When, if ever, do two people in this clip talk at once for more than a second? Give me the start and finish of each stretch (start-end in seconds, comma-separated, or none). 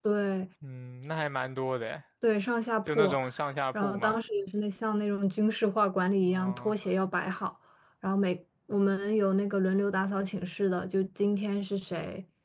none